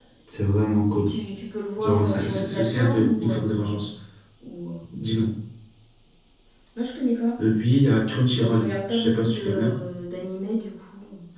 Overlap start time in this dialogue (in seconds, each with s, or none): 1.8 s